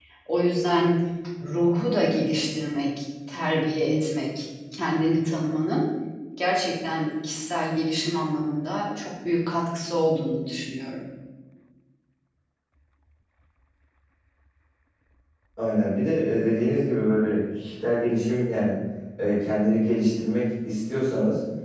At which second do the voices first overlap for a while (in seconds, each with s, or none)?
none